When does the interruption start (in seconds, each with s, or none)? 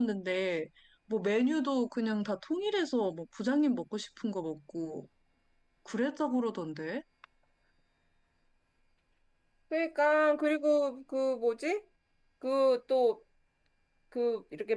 none